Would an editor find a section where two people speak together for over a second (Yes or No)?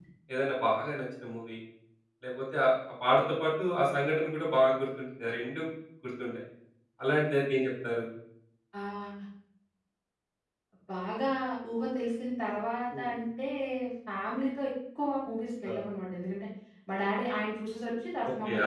No